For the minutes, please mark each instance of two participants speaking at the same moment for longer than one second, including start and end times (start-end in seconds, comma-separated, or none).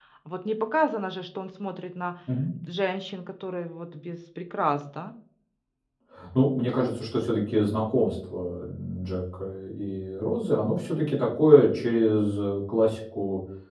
none